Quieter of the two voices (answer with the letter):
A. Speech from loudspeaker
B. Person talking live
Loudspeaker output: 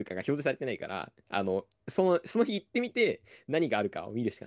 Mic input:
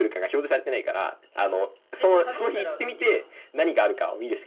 B